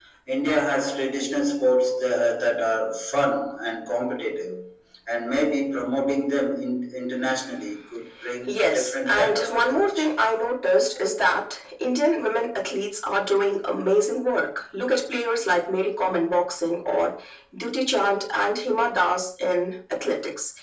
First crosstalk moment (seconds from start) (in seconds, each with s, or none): 8.5 s